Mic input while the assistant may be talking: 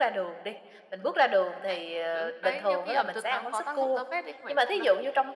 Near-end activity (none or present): none